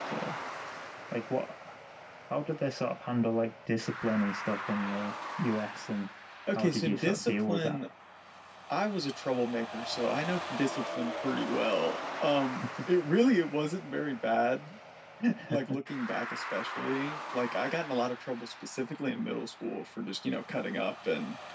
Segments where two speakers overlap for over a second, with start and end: 6.5-7.8

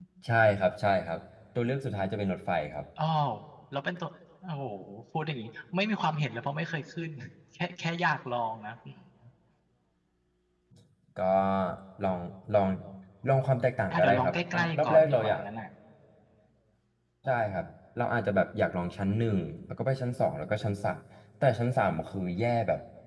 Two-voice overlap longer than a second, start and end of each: 13.9-15.4

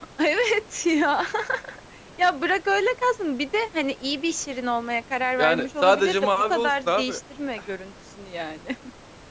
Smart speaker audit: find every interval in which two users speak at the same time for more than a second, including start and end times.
5.4-7.2

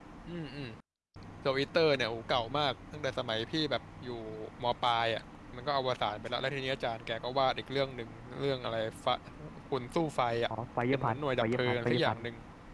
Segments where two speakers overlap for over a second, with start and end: 10.9-12.2

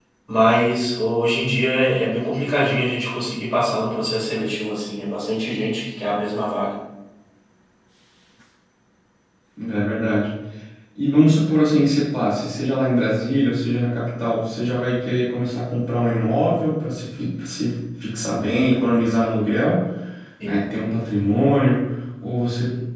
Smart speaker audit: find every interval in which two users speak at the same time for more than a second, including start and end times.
none

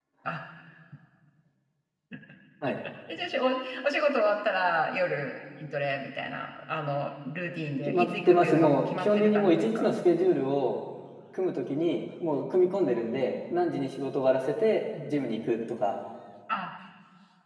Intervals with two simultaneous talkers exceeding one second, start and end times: 7.8-10.0

